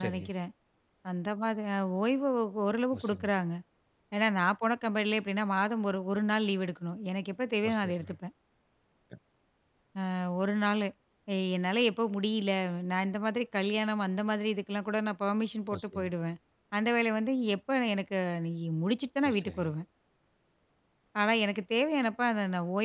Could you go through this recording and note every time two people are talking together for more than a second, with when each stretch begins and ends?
none

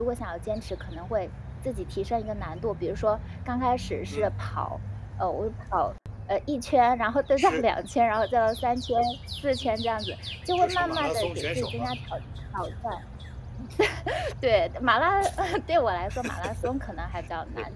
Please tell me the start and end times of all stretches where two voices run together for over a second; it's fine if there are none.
10.6-11.9

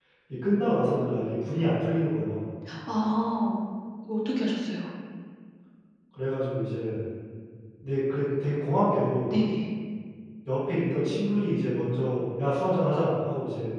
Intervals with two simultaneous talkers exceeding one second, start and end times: none

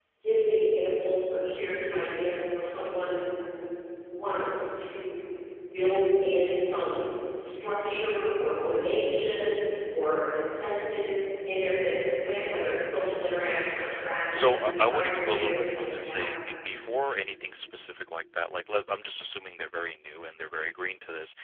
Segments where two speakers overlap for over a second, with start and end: 14.3-16.2

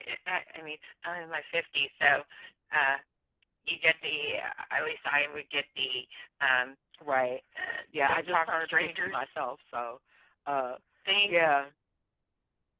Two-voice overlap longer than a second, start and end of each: 8.1-9.3

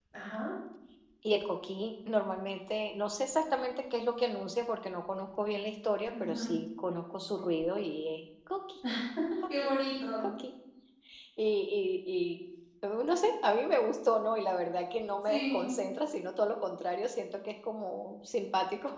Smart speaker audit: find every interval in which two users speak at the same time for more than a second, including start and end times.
none

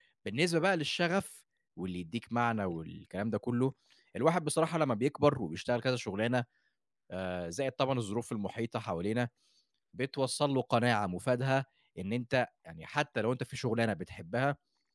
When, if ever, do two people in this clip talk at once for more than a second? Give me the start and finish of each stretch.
none

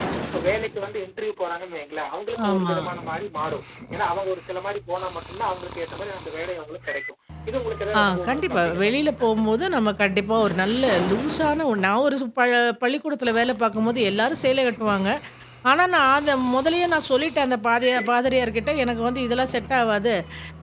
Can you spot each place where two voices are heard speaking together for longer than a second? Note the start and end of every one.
8.0-9.7

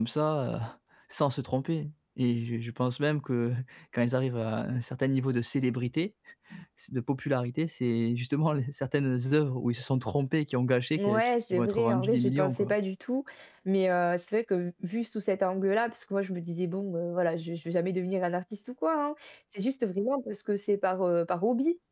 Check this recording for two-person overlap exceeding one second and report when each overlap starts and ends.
11.0-12.7

